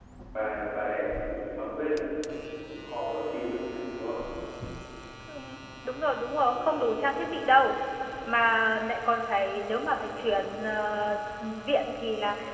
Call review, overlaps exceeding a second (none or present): none